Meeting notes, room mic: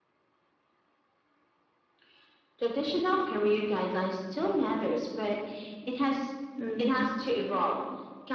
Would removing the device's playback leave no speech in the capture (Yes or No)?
No